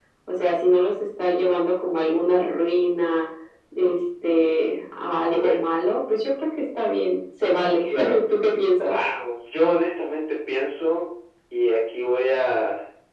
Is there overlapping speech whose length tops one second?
No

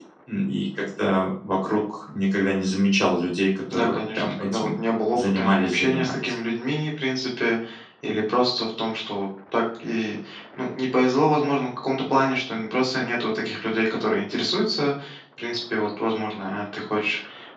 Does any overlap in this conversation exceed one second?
Yes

